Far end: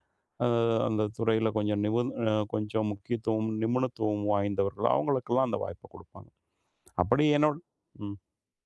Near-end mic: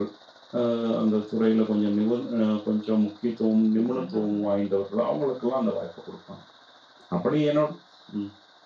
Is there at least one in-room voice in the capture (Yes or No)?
Yes